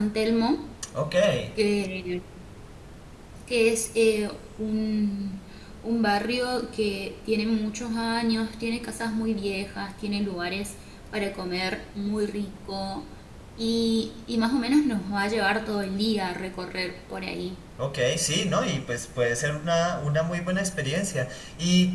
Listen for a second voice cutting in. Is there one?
No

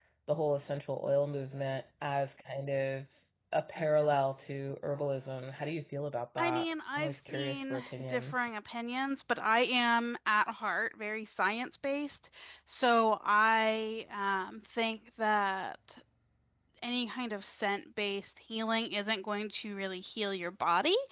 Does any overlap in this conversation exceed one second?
Yes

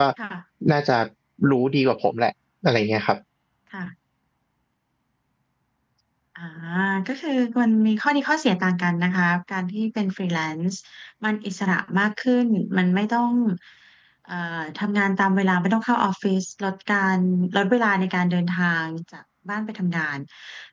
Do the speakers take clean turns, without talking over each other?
Yes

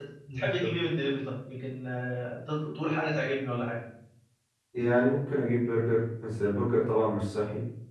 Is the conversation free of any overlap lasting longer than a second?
Yes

